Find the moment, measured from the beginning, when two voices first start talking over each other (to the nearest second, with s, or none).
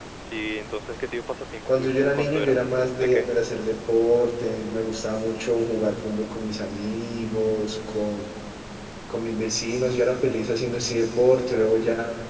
2 s